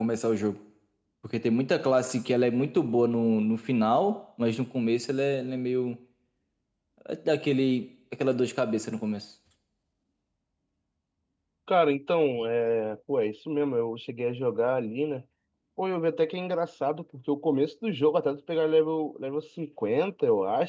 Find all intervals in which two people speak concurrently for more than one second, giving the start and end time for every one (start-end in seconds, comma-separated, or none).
none